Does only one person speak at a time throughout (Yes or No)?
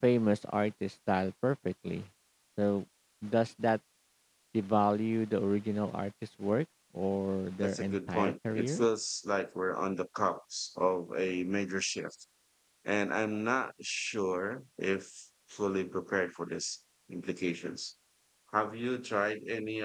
No